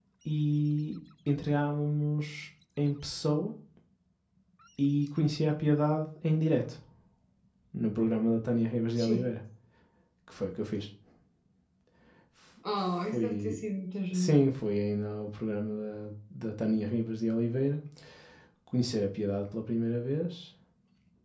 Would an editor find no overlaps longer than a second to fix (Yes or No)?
Yes